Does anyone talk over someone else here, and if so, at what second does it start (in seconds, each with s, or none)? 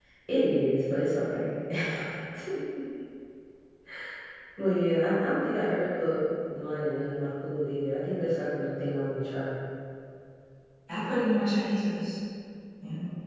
none